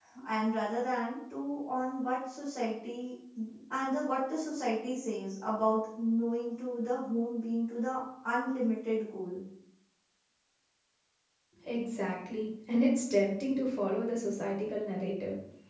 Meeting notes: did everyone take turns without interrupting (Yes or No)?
Yes